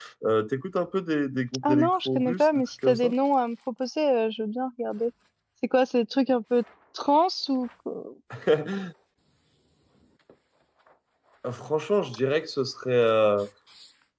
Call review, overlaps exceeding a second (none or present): present